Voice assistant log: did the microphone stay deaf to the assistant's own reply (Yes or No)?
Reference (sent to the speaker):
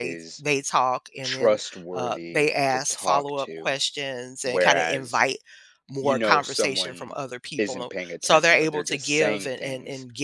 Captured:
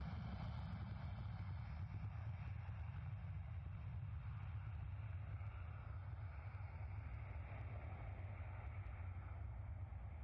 Yes